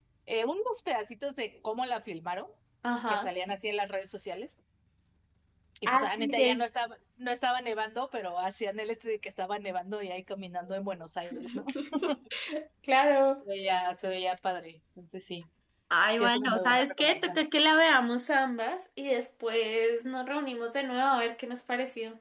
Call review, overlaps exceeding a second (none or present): present